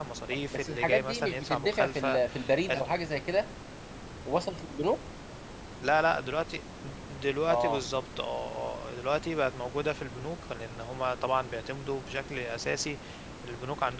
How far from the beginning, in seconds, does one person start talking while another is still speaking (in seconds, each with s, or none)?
0.5 s